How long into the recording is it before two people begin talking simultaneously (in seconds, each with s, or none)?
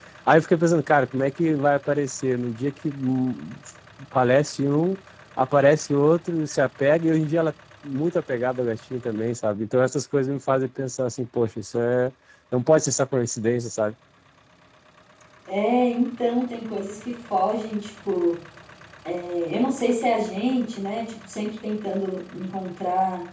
none